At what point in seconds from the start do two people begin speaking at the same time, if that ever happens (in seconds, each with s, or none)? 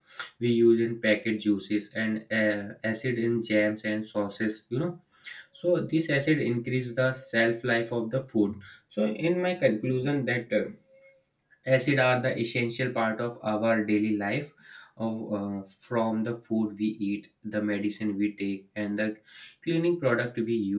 none